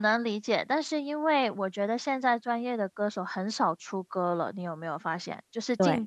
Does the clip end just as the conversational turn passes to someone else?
No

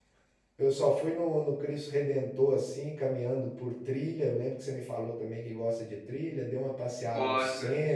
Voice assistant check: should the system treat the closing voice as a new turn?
No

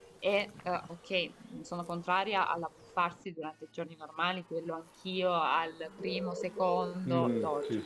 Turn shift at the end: Yes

